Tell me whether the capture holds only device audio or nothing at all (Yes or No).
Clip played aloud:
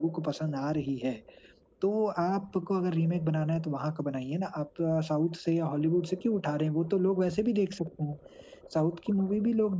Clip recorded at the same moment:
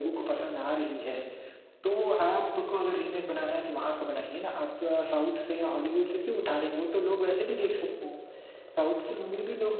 Yes